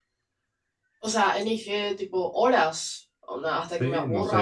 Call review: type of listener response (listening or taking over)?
taking over